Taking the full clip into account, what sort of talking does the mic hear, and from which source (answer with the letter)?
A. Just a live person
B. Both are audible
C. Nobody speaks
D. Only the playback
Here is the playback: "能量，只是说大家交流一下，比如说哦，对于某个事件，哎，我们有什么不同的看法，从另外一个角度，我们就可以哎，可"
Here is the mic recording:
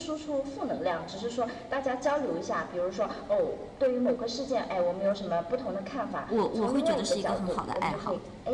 B